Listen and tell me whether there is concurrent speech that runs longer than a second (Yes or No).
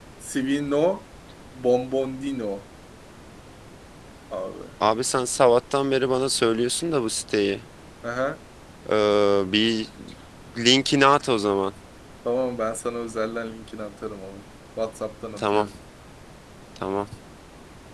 No